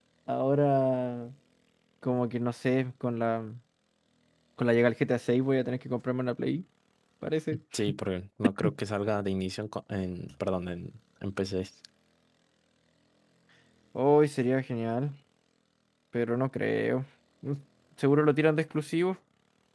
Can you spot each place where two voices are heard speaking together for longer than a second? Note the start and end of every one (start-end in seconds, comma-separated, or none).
none